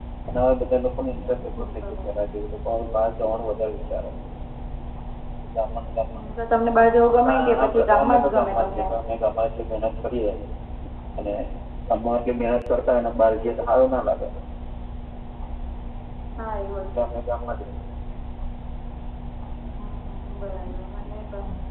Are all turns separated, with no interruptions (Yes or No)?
No